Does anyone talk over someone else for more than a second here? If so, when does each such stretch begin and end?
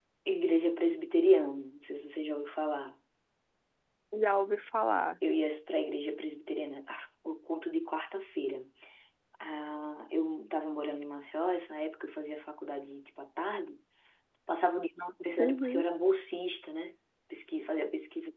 none

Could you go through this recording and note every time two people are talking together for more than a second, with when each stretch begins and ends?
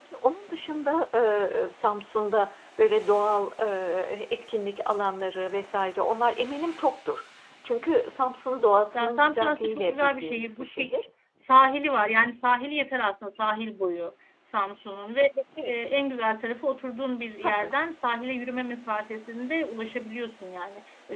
8.9-11.0

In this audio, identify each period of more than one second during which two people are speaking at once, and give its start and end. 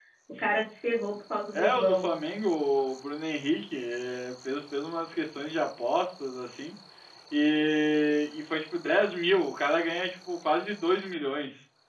none

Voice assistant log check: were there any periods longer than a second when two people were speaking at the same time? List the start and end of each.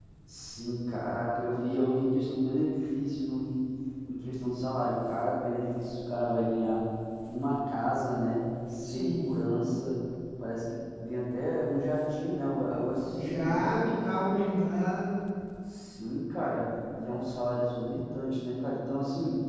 none

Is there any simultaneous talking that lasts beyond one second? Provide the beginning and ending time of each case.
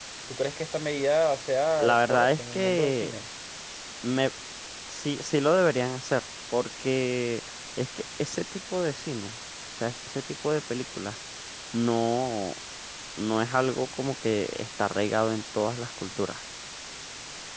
1.8-3.1

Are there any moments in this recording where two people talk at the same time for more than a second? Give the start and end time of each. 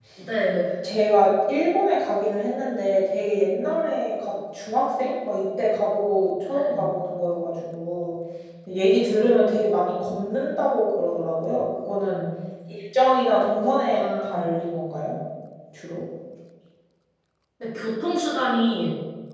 none

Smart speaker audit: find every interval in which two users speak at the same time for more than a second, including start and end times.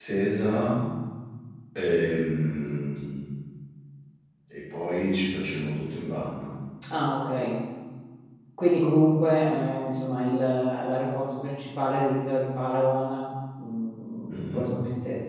none

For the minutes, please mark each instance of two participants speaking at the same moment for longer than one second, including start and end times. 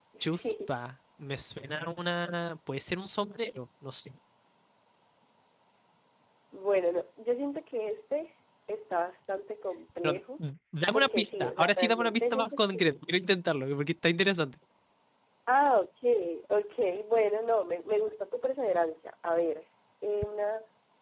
10.9-12.6

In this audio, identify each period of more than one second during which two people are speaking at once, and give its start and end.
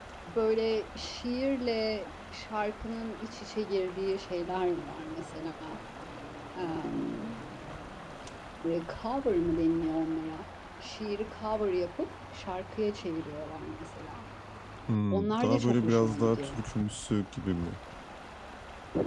15.1-16.6

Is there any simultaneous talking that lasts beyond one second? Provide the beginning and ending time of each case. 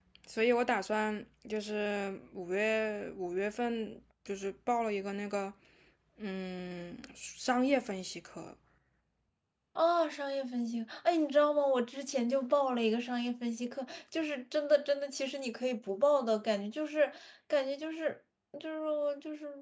none

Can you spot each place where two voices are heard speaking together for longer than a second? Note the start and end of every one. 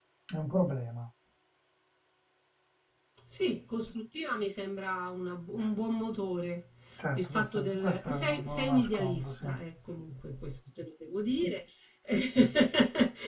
7.2-9.4

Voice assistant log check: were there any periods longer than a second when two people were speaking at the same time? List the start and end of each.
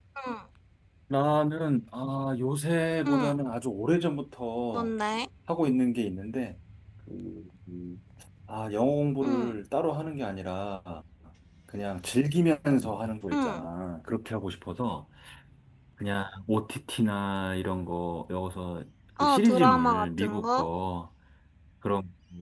19.2-20.7

